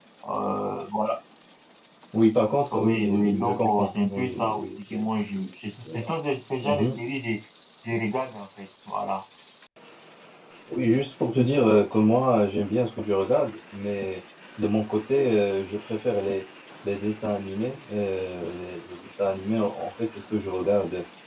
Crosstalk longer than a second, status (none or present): present